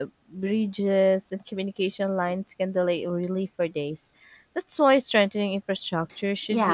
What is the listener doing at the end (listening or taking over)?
taking over